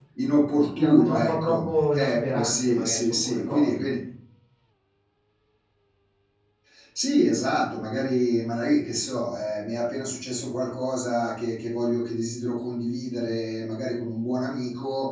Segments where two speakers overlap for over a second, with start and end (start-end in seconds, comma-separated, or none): 0.8-3.9